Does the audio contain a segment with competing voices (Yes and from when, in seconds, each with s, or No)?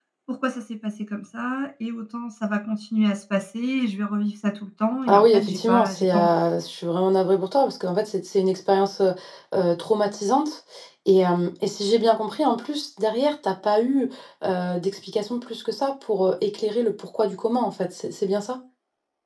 Yes, from 5.1 s